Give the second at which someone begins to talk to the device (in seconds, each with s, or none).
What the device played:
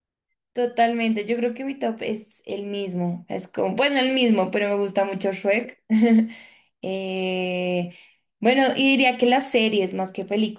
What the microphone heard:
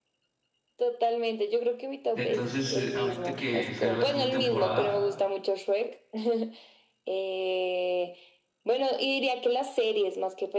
2.1 s